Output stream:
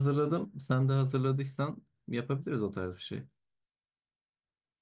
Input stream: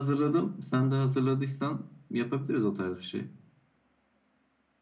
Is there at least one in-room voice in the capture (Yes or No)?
No